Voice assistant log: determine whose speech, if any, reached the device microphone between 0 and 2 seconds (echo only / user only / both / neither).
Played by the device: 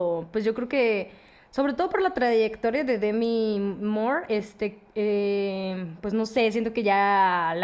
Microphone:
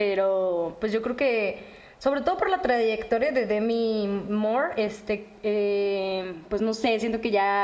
echo only